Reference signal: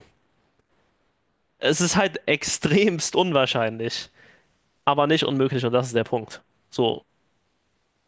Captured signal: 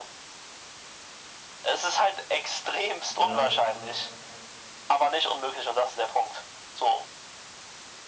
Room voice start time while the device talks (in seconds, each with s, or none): 3.1 s